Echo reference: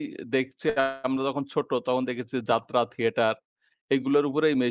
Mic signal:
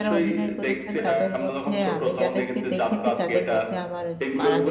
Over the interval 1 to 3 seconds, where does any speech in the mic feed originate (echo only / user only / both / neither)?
both